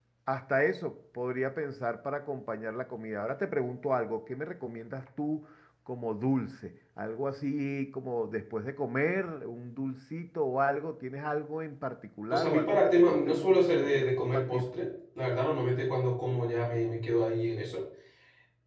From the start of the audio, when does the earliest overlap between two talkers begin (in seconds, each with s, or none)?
12.3 s